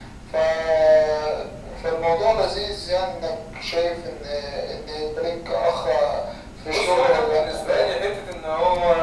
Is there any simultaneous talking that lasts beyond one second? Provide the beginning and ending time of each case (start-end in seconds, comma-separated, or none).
6.7-8.0